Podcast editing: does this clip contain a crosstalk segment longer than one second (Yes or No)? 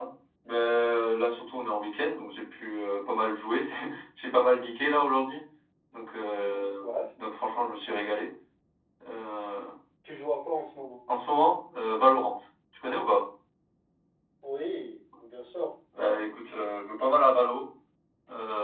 No